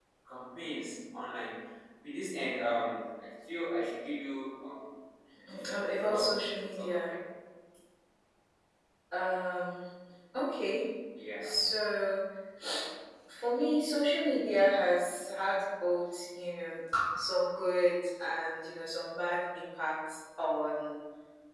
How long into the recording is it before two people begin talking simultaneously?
6 s

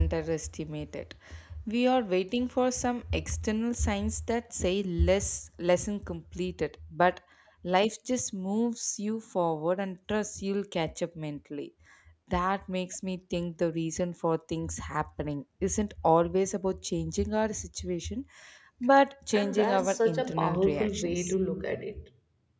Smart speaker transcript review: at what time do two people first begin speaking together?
19 s

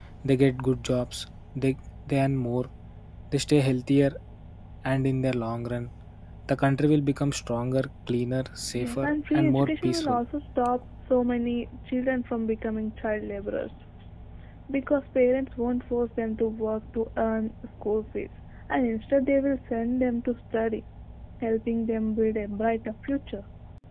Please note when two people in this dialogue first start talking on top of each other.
9 s

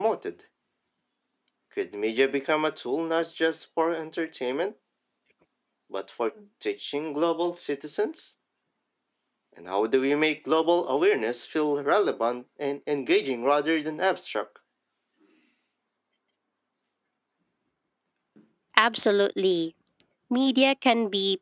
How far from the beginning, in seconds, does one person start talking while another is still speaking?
none

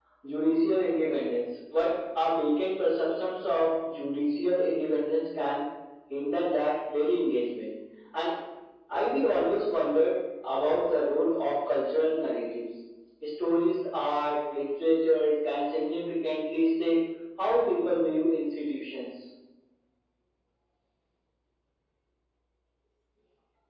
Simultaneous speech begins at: none

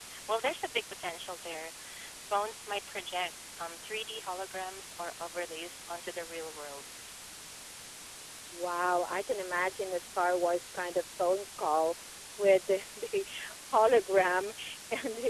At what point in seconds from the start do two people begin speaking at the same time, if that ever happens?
none

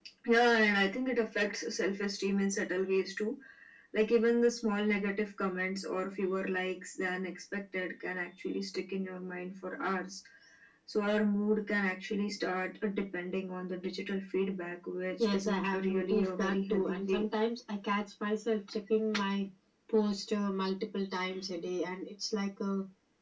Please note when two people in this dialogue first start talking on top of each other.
15 s

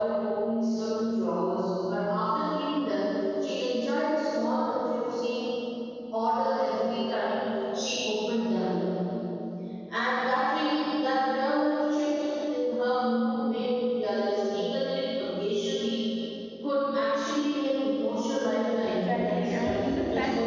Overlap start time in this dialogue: 19 s

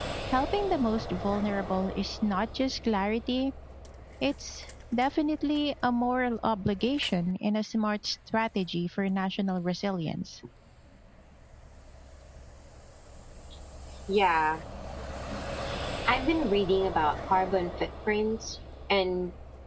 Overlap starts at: none

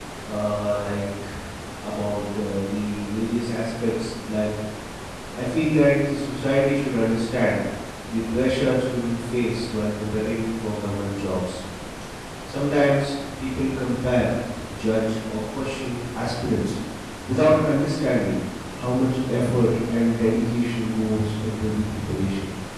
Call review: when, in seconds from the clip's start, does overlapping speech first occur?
none

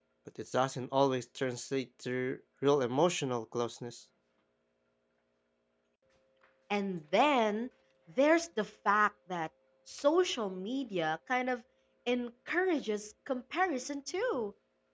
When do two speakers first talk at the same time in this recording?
none

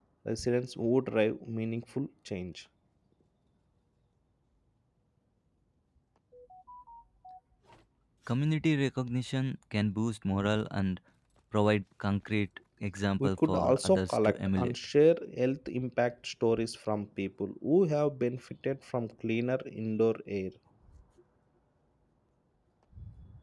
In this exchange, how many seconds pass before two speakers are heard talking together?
13 s

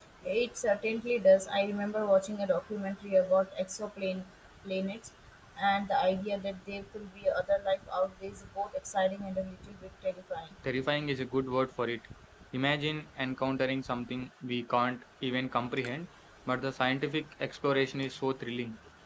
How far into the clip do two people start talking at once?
none

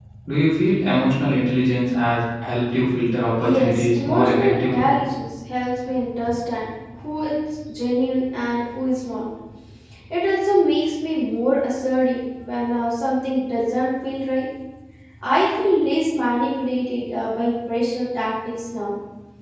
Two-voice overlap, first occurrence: 3 s

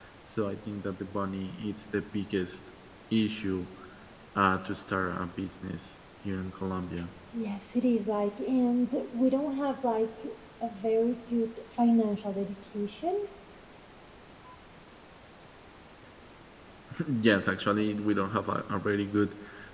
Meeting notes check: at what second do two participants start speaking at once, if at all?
none

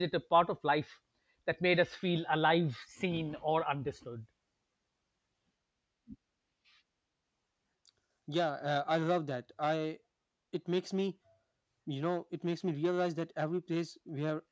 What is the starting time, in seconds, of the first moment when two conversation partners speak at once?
none

